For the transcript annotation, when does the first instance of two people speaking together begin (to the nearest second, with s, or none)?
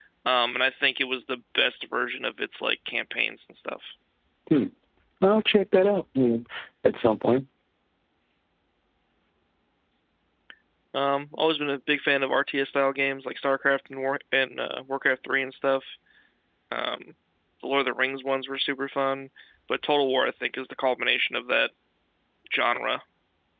none